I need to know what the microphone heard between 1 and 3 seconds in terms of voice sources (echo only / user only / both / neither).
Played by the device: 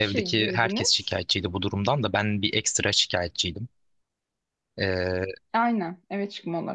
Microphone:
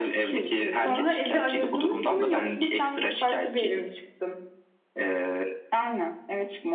both